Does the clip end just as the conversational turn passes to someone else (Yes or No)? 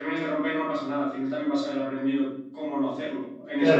Yes